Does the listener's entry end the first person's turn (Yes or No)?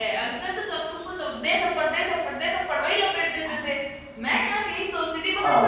No